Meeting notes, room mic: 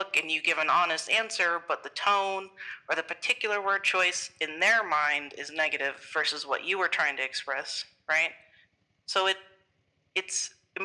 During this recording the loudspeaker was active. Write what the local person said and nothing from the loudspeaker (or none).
none